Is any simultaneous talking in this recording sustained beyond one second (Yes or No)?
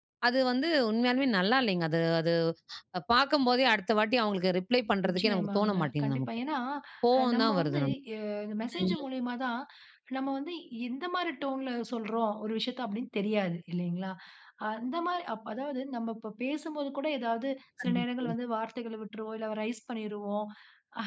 Yes